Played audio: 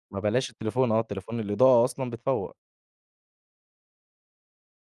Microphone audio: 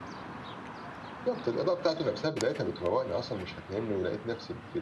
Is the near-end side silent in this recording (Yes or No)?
No